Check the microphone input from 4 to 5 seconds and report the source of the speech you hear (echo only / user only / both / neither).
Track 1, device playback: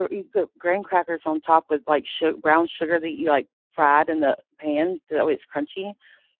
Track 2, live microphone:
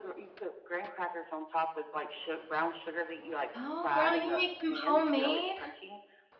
both